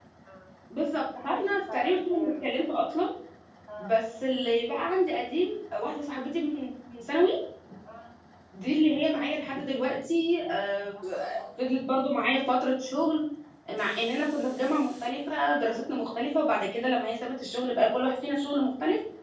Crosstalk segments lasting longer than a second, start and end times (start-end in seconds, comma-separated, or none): 1.2-2.8